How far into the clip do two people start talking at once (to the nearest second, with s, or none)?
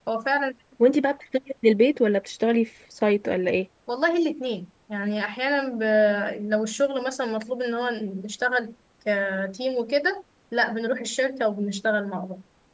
none